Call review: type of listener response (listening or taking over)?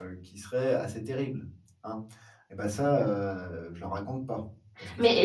taking over